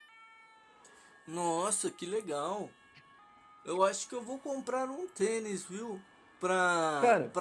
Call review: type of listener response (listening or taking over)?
listening